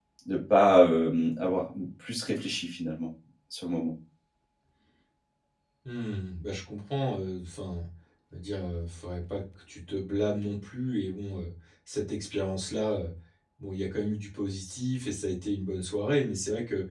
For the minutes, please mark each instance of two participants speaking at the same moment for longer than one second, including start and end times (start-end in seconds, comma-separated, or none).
none